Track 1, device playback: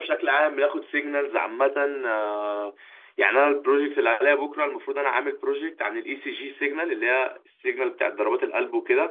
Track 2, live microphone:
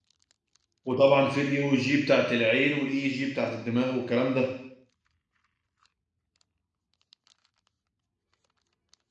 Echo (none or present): none